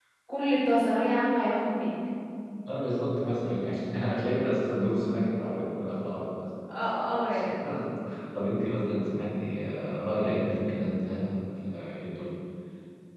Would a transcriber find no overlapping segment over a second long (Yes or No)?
Yes